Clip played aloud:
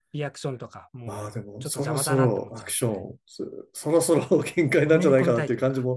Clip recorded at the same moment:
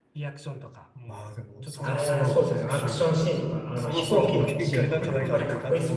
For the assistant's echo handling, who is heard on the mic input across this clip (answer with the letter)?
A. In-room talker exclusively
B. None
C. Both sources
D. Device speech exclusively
C